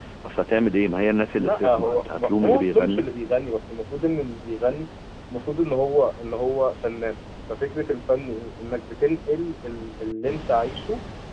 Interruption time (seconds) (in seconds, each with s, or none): 1.3 s